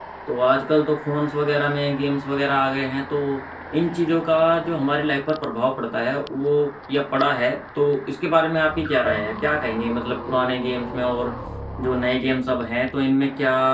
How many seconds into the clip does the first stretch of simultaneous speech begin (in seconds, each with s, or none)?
none